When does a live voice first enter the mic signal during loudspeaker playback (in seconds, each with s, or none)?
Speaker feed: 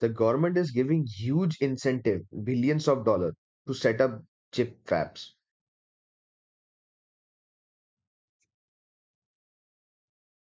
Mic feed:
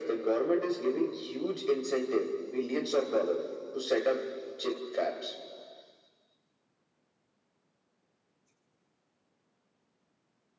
none